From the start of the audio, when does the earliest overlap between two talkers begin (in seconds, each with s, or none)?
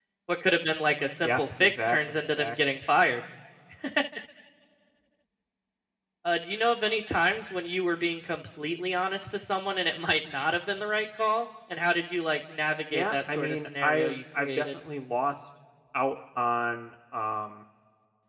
1.2 s